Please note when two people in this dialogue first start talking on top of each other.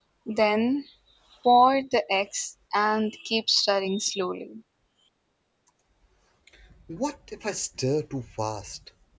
none

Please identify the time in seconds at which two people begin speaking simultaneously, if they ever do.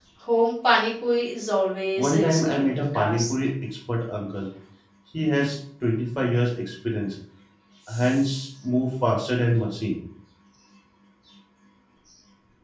2.0 s

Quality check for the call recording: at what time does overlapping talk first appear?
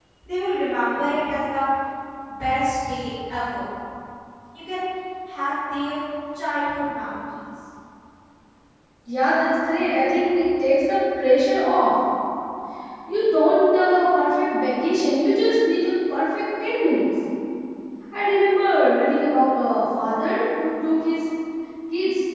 none

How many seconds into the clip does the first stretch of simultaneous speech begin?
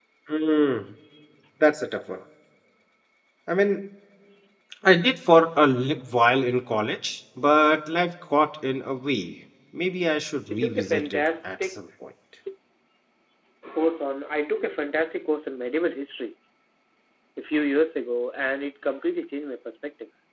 10.5 s

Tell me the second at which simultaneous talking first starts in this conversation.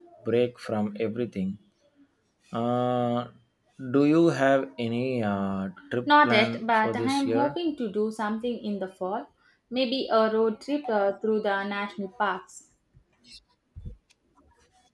6.1 s

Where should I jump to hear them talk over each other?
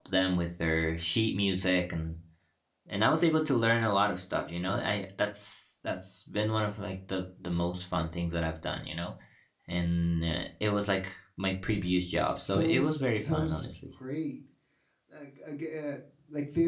12.4 s

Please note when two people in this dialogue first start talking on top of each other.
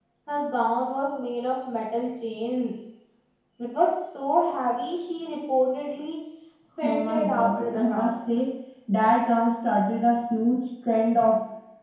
6.8 s

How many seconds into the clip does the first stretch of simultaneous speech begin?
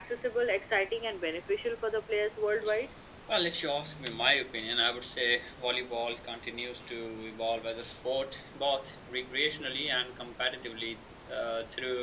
none

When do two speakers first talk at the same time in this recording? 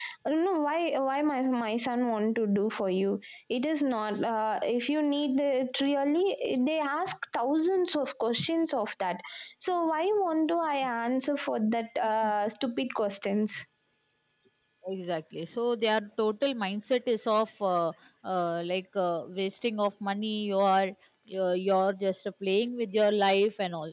none

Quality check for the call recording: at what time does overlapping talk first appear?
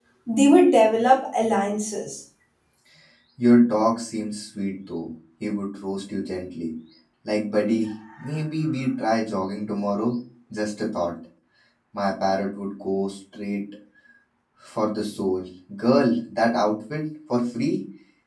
none

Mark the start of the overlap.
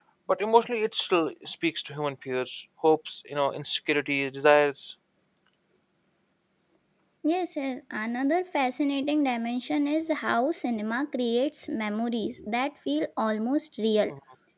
none

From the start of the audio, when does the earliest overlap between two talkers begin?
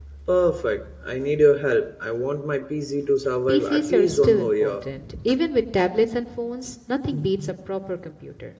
3.5 s

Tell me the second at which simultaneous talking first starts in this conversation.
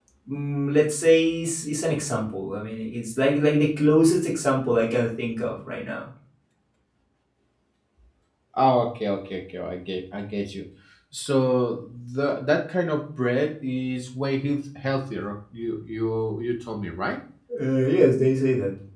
none

